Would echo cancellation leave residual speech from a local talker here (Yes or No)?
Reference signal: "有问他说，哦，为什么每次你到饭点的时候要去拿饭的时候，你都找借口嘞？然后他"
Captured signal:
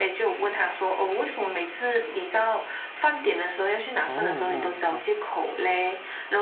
Yes